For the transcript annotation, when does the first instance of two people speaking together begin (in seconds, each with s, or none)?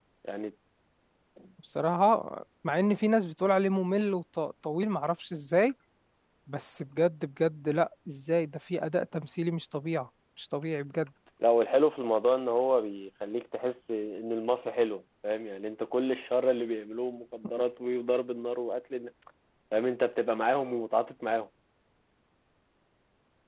none